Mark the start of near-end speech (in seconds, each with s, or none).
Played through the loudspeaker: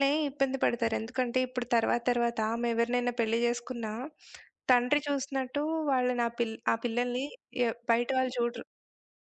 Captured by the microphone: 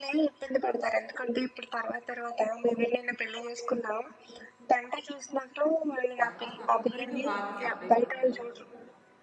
6.2 s